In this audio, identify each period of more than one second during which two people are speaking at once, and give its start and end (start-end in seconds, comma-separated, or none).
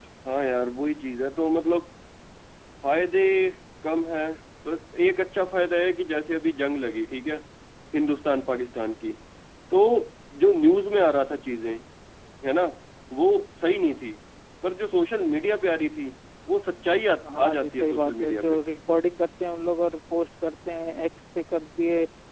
17.4-18.6